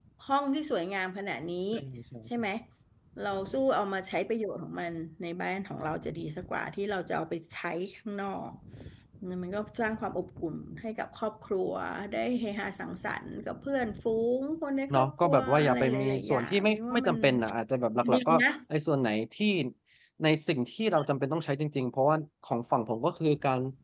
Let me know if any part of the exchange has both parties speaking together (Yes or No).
Yes